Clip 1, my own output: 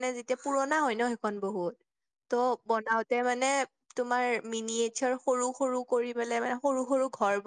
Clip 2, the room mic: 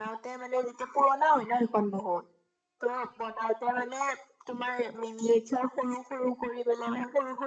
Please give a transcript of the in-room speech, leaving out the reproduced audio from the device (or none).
none